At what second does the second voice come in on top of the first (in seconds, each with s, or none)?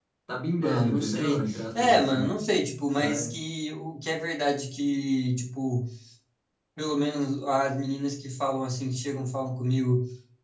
0.6 s